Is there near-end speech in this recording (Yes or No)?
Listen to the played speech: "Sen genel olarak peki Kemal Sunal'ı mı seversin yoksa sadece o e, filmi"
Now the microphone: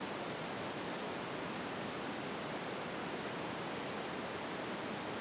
No